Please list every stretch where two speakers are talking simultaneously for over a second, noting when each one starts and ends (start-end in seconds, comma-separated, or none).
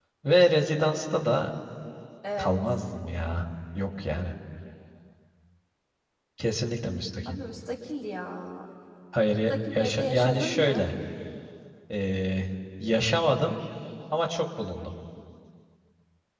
9.5-10.9